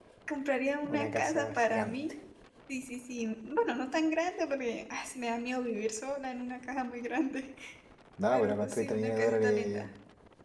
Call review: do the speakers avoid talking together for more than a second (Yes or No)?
No